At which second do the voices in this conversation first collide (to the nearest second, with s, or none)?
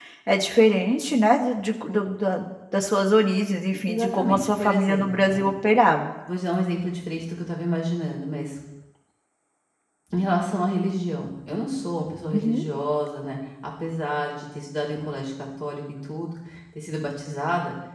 4 s